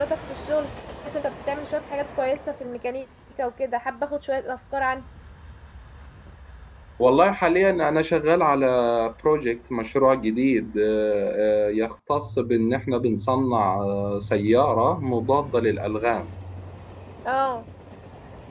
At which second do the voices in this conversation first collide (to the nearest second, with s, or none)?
none